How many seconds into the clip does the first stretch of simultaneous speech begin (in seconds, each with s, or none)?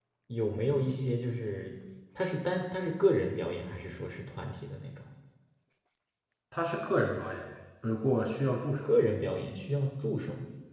none